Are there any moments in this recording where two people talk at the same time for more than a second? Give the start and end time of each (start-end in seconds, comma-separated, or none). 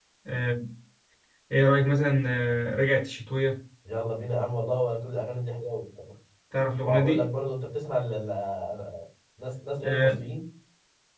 none